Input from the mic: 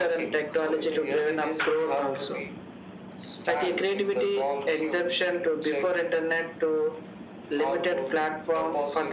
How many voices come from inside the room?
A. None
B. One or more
A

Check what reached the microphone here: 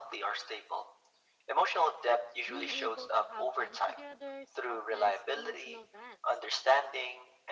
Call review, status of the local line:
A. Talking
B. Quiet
A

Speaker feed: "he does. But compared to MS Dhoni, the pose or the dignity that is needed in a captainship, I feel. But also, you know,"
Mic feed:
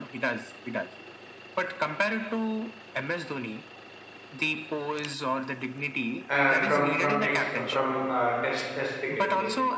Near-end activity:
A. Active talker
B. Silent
A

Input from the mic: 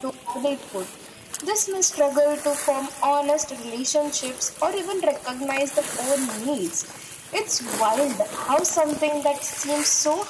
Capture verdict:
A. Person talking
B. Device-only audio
B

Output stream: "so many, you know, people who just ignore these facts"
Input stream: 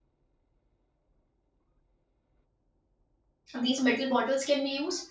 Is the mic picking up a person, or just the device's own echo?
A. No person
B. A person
B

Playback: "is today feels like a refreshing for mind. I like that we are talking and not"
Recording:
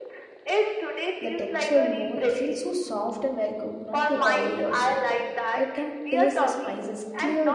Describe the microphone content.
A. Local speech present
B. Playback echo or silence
A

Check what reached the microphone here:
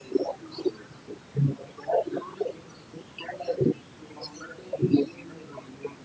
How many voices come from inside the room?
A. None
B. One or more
A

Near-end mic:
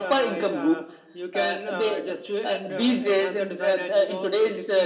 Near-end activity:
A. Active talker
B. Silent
B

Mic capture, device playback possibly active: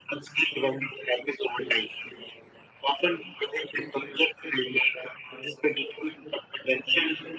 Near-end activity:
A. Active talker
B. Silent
B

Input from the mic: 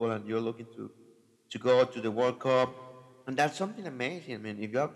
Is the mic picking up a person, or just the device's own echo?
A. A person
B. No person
B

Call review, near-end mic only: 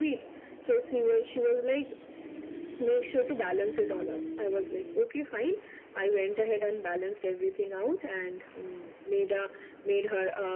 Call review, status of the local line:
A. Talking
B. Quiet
B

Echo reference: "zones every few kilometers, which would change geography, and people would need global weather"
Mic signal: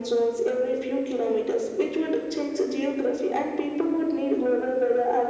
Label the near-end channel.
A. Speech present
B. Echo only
B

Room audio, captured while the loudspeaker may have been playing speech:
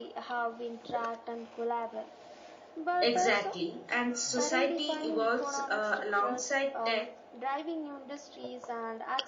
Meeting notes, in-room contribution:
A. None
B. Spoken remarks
B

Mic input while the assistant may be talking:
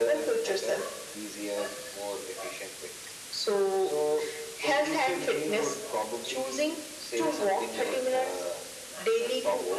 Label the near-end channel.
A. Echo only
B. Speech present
A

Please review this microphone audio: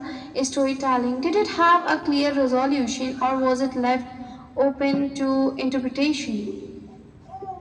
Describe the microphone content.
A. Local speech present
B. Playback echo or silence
B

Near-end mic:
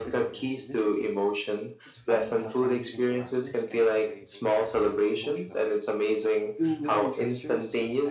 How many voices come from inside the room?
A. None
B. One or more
B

